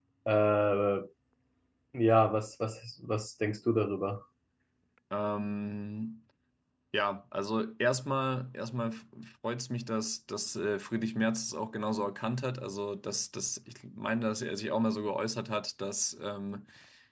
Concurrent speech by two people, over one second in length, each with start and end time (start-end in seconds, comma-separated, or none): none